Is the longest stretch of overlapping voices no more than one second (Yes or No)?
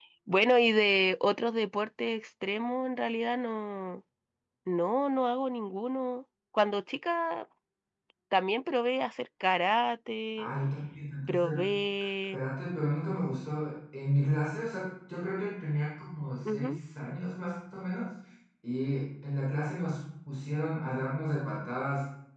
Yes